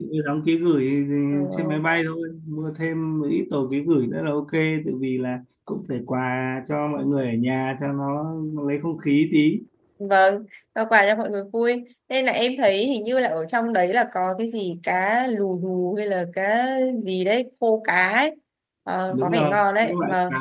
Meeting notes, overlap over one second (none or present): present